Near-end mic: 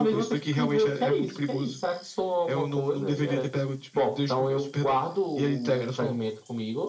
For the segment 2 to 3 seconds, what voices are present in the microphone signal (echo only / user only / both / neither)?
echo only